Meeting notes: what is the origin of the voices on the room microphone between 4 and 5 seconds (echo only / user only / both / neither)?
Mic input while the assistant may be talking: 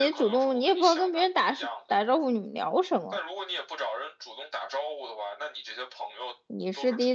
echo only